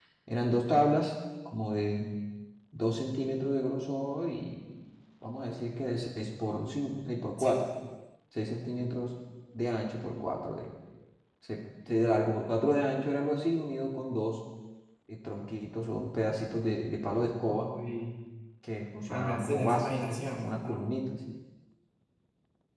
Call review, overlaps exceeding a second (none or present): present